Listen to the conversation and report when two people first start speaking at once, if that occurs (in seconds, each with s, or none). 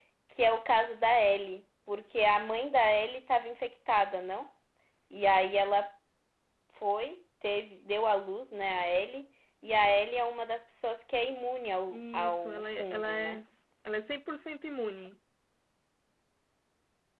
11.9 s